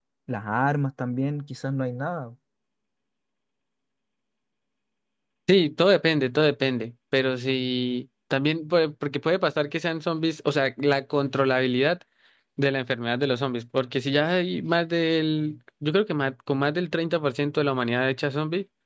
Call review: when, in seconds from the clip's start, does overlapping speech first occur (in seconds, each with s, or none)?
none